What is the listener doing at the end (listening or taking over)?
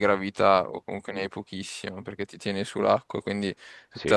listening